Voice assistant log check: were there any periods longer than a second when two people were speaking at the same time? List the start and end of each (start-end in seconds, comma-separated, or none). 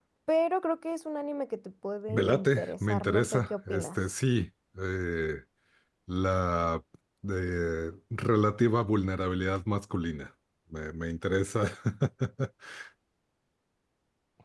2.1-4.0